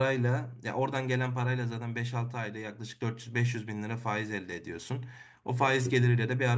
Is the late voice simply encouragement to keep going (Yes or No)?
Yes